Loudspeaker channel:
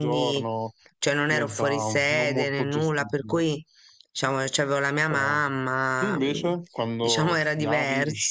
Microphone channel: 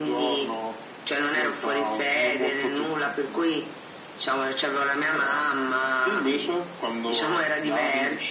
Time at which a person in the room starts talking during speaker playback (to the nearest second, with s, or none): none